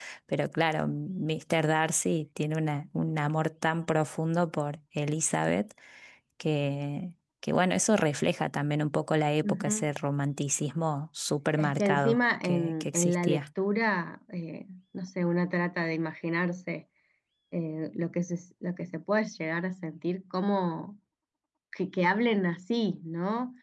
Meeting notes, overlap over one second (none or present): present